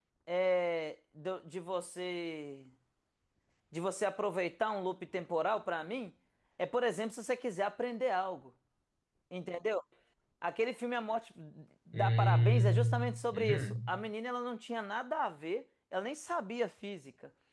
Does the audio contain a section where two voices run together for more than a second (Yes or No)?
Yes